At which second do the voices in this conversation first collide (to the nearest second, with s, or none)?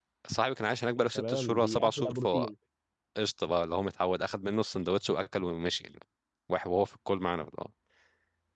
1 s